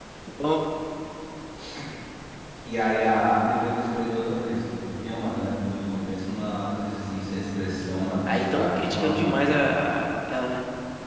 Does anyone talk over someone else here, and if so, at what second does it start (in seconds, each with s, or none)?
8.3 s